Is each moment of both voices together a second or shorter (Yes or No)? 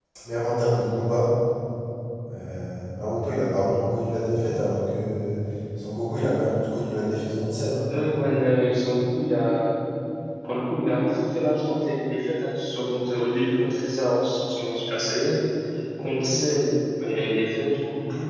Yes